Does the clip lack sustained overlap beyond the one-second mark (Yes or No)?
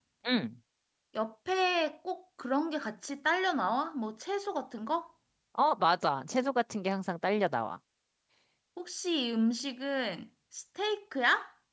Yes